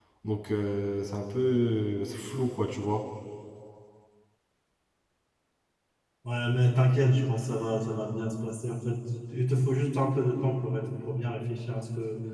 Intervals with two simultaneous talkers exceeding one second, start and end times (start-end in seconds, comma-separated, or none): none